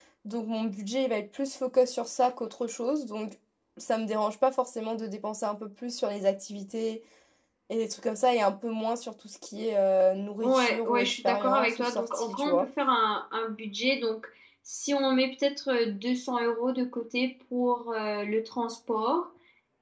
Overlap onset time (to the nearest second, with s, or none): 10 s